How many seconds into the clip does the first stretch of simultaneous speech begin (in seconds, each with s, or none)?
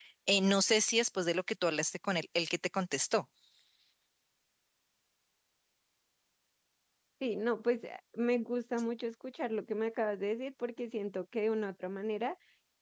none